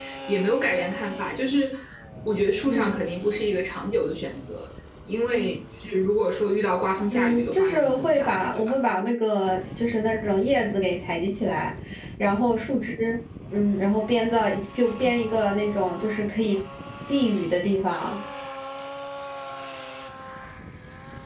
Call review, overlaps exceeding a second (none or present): present